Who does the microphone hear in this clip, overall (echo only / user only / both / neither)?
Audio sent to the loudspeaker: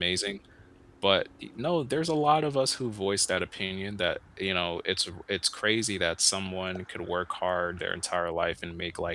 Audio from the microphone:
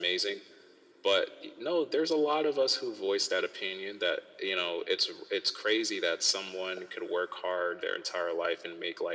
echo only